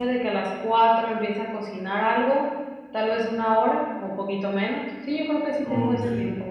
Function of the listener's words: taking over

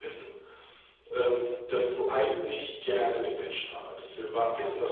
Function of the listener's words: listening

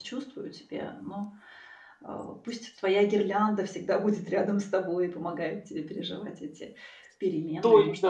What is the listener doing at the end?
taking over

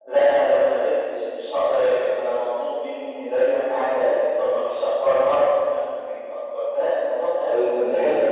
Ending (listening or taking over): taking over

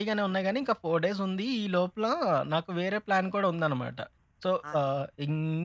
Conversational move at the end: listening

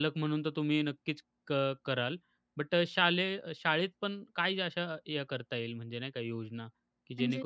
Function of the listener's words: listening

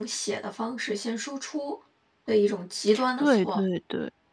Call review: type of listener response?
taking over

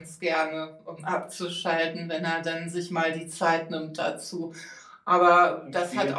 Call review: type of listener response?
listening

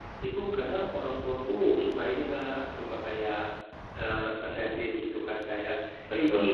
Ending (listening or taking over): listening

